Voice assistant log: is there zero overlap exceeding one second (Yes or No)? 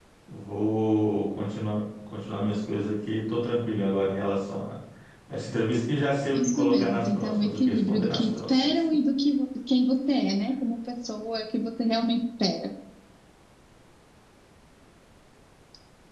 No